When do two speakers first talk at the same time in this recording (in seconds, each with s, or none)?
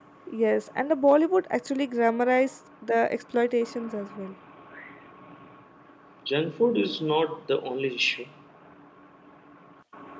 none